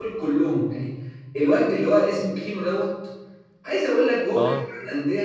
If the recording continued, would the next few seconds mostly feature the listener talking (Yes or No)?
No